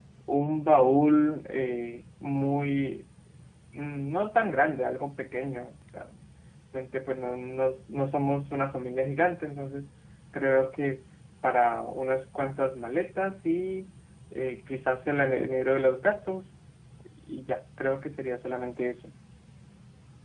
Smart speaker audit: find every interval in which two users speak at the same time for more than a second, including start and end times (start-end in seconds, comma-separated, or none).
none